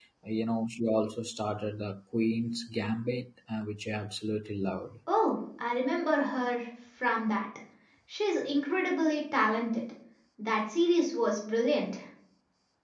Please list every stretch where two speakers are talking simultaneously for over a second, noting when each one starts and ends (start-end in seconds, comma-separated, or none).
none